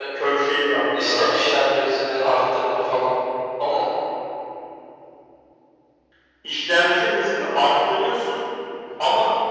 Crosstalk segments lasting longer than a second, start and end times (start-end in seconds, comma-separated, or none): none